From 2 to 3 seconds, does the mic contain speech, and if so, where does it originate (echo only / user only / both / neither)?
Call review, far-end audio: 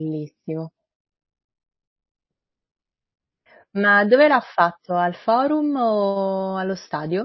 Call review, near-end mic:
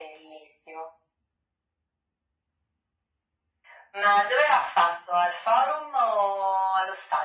neither